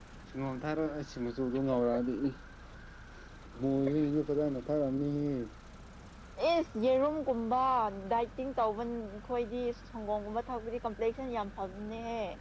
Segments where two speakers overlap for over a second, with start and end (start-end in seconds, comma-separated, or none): none